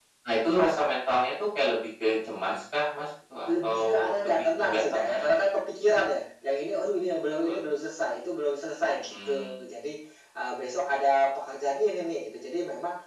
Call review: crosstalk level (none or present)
present